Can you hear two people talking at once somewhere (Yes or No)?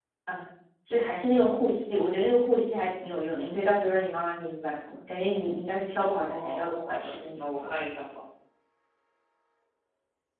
Yes